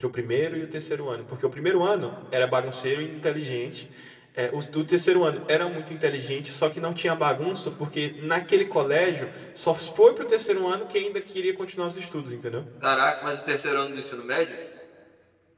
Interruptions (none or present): none